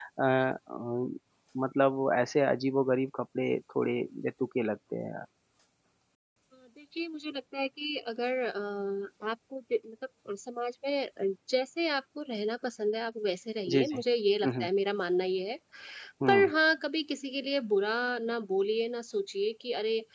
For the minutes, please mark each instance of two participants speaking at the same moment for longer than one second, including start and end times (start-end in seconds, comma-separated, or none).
none